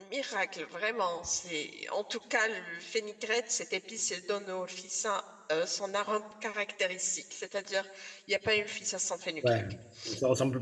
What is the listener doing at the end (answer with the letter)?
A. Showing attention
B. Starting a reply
B